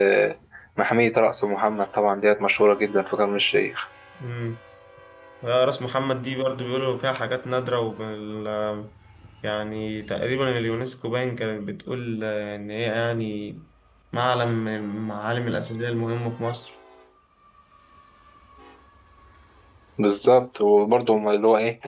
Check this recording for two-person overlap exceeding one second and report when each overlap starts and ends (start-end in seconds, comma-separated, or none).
none